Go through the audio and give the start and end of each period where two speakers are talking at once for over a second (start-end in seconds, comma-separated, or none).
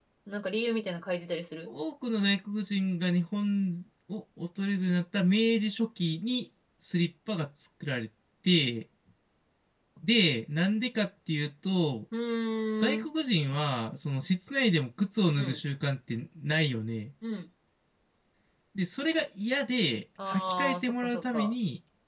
20.2-21.5